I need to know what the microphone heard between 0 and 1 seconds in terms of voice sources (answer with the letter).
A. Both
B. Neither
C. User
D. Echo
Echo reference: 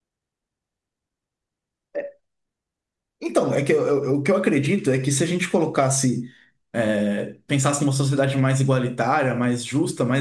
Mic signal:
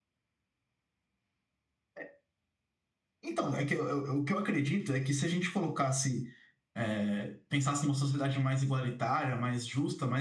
B